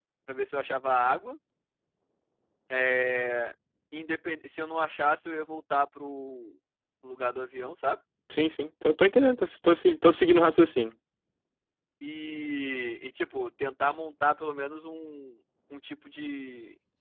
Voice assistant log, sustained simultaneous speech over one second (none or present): none